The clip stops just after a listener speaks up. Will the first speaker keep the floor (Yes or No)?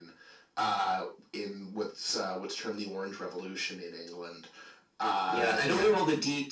No